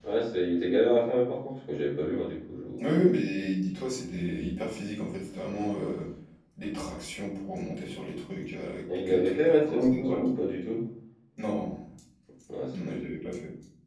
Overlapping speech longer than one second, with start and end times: 9.1-10.3

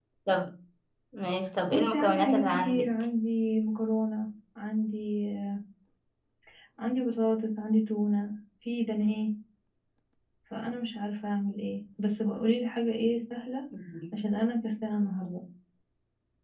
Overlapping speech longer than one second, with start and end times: 1.7-2.9

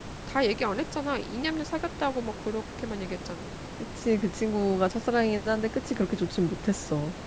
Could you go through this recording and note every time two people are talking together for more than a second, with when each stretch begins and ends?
none

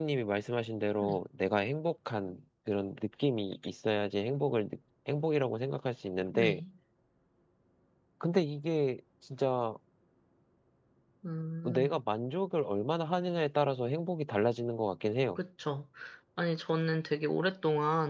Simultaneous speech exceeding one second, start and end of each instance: none

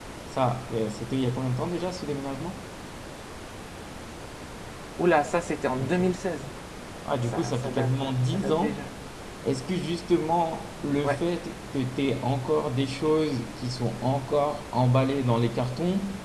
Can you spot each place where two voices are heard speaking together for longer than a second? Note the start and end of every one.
7.3-8.8

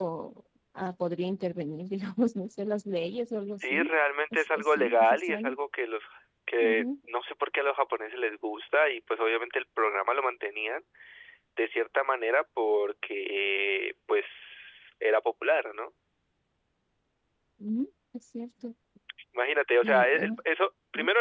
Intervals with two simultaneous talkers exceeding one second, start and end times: 4.3-5.6

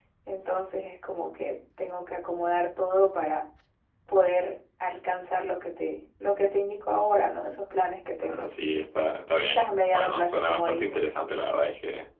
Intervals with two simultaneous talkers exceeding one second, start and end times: 9.4-11.1

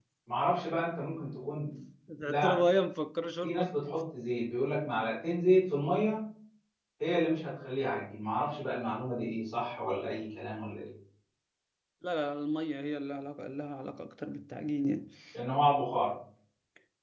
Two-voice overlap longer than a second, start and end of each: none

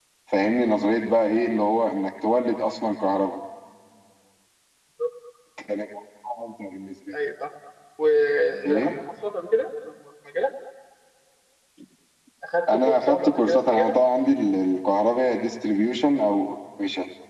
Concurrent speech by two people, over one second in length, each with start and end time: 12.7-13.9

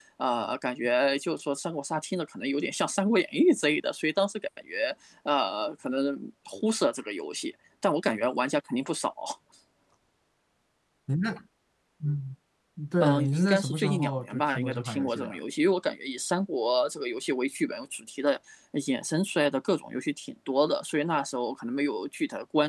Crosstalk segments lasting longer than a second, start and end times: 13.0-15.4

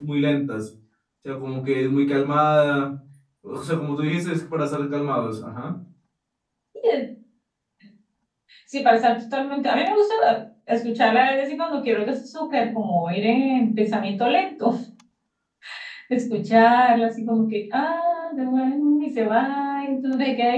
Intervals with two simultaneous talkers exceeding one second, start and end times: none

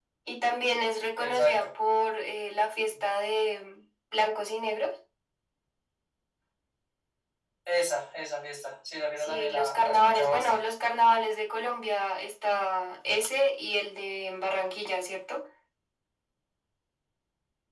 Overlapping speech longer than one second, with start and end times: 9.2-10.7

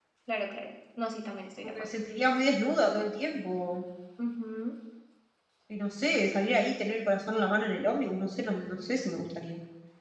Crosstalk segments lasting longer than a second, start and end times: none

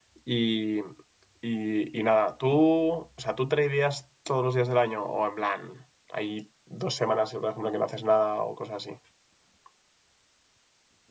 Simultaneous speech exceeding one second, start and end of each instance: none

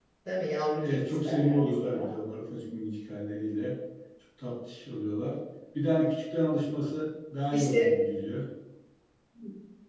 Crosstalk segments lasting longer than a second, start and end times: 0.8-2.1

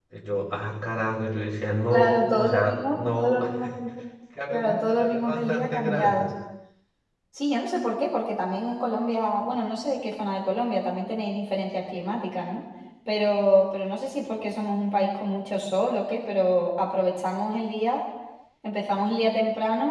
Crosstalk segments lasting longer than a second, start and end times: 1.9-3.4, 4.5-6.3

